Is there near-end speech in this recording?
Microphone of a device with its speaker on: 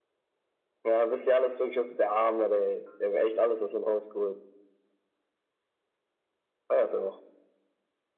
No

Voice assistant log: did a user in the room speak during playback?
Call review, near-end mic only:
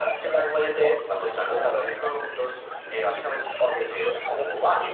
Yes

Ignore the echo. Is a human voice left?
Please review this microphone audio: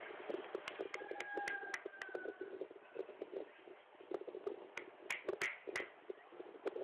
No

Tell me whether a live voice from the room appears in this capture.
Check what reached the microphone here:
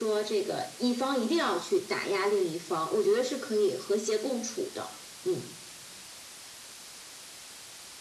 No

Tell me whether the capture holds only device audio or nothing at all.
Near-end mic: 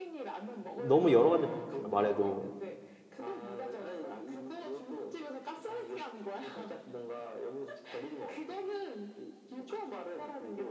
No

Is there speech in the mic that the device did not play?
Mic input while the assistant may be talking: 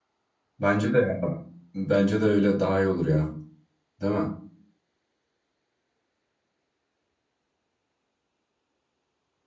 Yes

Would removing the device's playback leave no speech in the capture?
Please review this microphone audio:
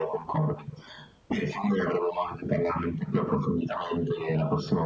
Yes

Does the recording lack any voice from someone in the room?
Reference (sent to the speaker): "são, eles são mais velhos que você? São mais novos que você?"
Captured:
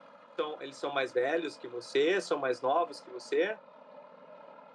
Yes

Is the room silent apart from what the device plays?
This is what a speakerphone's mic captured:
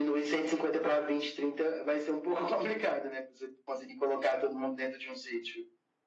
Yes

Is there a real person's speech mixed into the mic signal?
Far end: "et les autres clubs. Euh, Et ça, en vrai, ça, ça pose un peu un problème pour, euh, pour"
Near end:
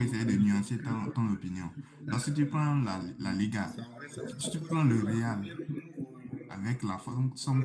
Yes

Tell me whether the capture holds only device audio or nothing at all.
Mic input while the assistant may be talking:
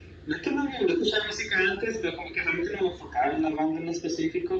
Yes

